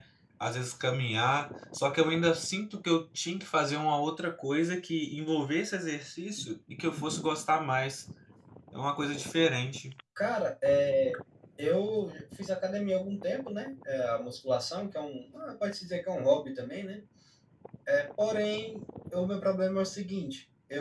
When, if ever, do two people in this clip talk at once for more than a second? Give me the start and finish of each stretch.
none

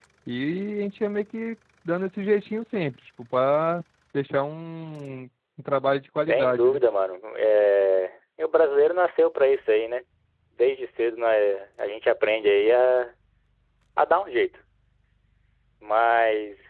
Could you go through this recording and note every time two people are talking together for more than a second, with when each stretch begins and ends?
none

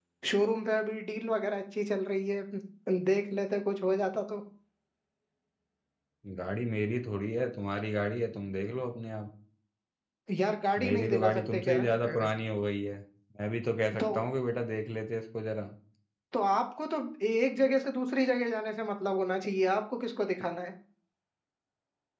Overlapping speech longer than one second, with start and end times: 10.8-12.3

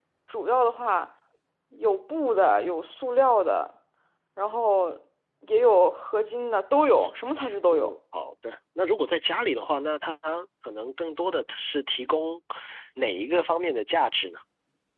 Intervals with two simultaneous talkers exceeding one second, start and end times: none

